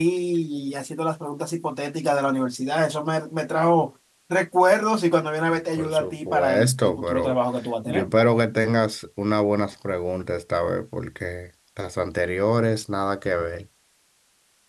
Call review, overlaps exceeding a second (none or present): present